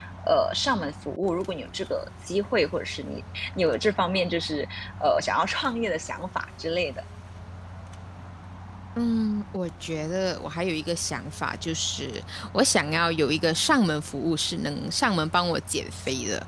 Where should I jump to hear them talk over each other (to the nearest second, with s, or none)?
none